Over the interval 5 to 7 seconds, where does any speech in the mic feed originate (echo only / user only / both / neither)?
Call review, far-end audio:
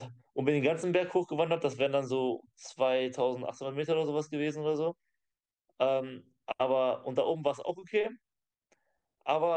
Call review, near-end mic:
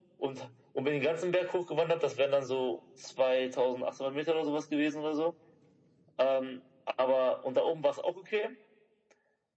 echo only